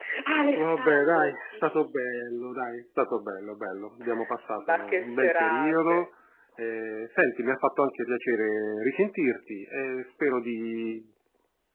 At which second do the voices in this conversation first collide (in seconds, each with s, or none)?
0.6 s